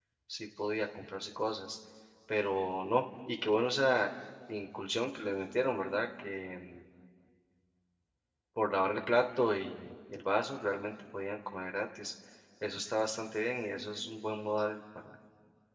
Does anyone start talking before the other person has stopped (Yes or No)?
No